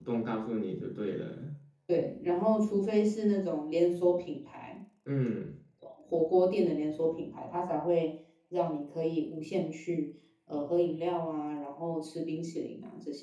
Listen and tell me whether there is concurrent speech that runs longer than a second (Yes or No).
No